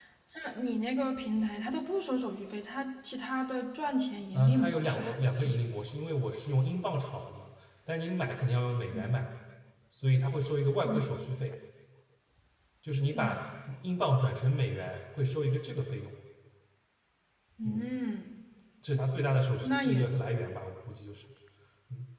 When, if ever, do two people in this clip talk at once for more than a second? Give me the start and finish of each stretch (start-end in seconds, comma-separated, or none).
4.3-5.6